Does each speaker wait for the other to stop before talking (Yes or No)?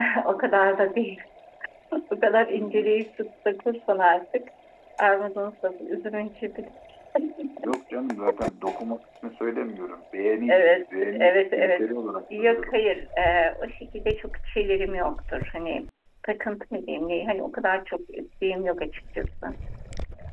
No